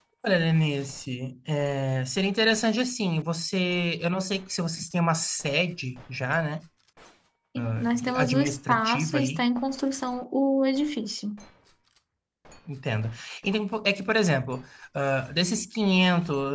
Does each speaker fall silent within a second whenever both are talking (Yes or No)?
No